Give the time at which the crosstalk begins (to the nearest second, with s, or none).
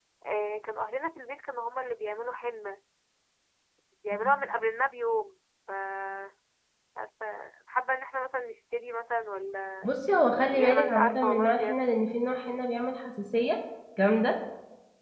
11 s